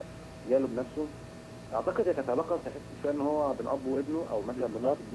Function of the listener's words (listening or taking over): taking over